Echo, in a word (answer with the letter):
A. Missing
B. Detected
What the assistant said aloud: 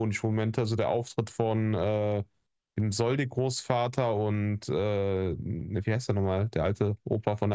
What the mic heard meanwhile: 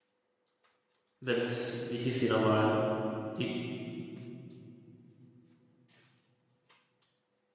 A